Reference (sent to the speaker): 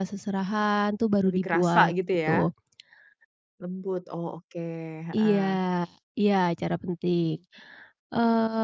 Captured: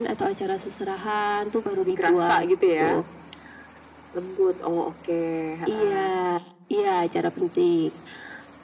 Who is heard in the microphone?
echo only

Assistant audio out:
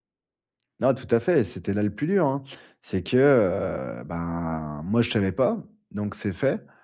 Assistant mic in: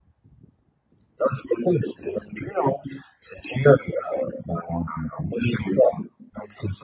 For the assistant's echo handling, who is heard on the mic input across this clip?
echo only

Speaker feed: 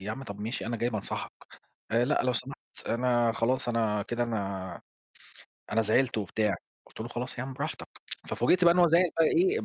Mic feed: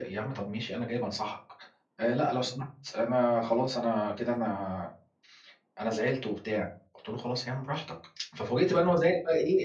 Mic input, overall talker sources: echo only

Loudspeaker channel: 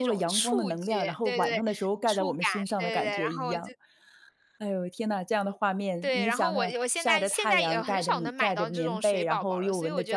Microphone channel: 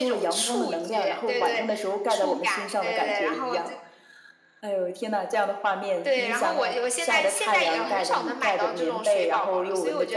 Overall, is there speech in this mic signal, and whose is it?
echo only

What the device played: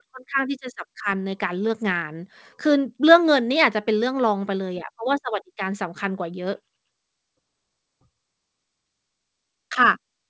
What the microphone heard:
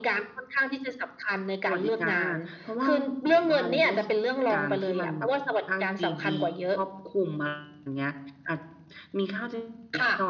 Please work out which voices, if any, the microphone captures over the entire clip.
both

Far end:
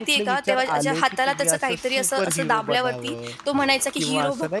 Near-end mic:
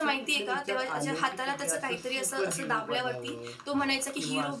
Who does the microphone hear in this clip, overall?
echo only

